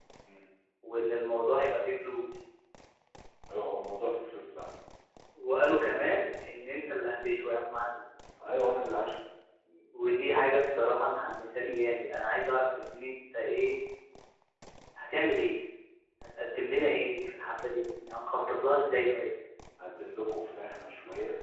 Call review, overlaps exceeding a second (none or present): none